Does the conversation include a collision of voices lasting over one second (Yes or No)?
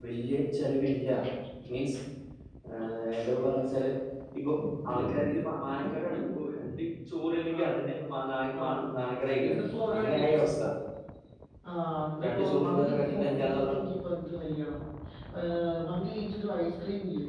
Yes